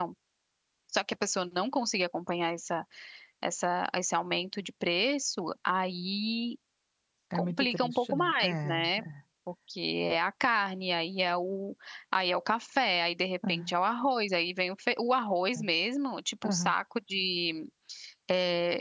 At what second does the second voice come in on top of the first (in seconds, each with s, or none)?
7.3 s